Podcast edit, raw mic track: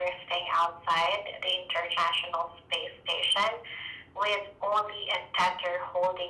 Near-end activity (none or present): none